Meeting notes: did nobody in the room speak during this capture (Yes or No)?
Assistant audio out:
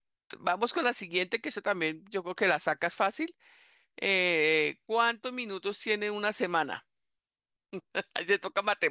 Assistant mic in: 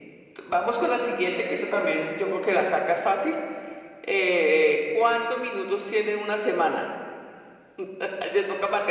Yes